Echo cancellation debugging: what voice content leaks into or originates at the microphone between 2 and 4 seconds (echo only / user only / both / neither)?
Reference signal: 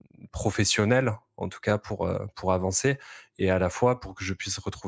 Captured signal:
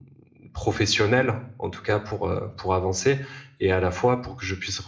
echo only